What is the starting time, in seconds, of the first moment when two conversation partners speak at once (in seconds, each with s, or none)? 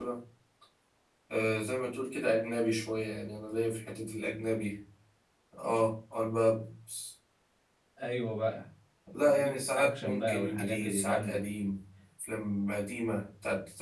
9.2 s